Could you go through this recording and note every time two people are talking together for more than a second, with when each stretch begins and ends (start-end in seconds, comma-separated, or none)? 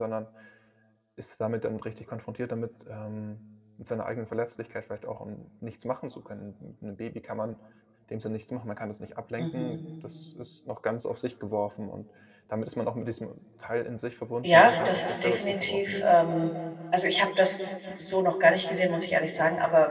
14.4-16.1